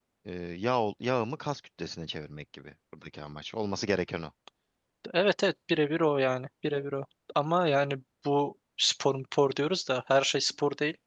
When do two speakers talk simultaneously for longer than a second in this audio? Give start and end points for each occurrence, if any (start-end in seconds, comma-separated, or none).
none